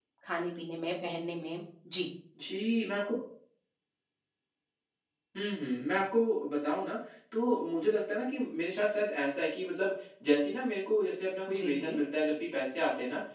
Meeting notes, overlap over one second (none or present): none